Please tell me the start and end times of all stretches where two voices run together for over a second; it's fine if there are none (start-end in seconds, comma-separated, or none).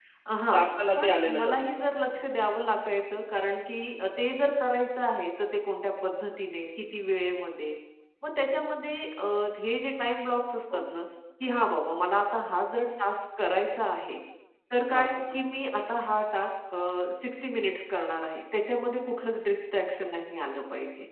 1.0-2.2